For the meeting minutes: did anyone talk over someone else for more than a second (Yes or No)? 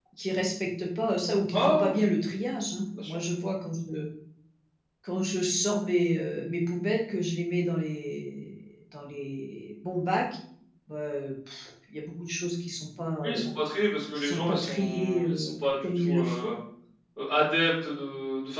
Yes